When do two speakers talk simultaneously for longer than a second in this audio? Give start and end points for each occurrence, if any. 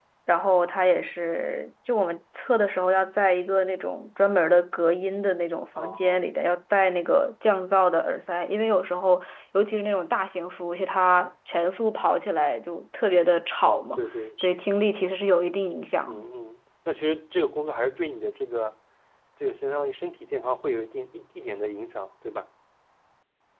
none

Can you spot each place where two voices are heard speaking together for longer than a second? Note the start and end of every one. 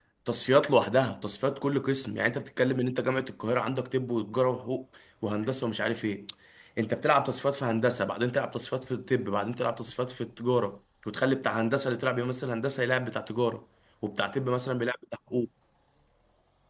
none

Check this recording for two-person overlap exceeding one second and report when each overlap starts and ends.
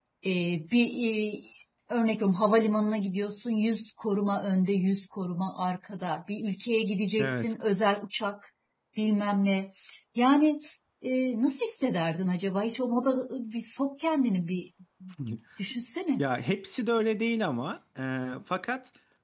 none

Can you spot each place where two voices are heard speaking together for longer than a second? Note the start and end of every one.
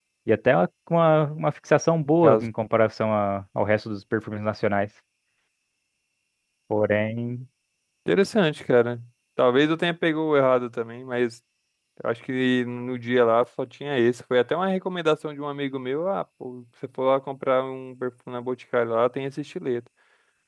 none

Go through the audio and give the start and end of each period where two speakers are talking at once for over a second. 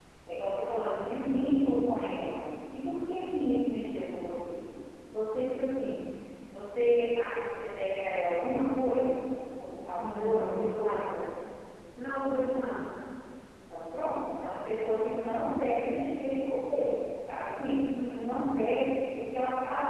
10.0-11.2

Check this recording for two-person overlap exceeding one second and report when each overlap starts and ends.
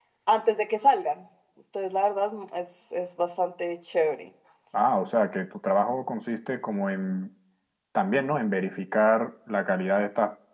none

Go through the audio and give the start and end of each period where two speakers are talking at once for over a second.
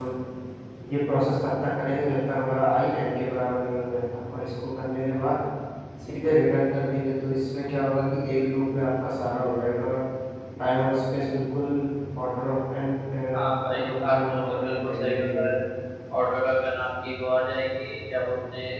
13.7-15.6

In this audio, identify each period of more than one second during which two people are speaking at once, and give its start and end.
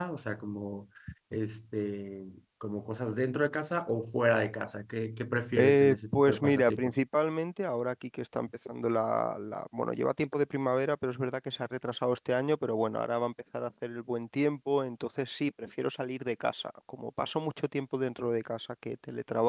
5.6-6.9

